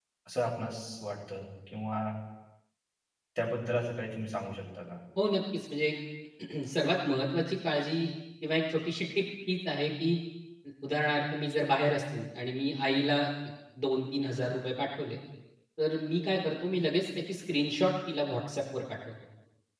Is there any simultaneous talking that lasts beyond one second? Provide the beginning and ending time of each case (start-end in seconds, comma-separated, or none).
none